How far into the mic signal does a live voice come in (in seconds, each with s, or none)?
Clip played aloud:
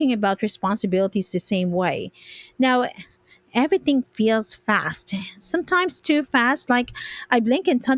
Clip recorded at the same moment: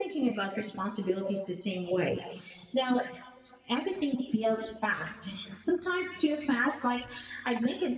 none